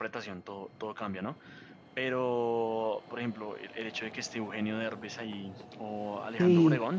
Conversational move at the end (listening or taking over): listening